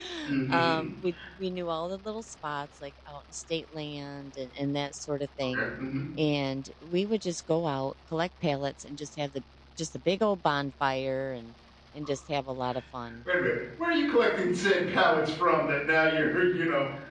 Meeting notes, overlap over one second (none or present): none